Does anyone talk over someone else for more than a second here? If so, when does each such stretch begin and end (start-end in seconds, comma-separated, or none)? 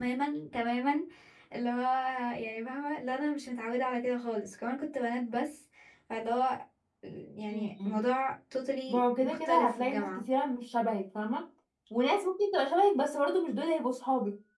8.9-10.2